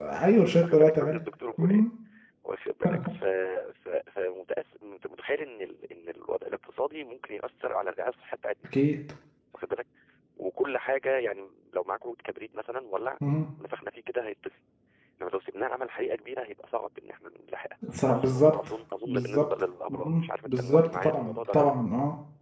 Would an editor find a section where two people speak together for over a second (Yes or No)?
Yes